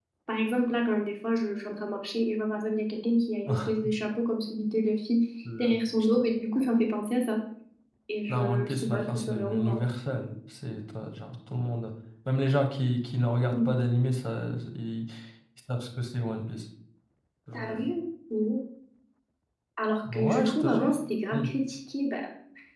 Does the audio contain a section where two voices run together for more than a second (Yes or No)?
Yes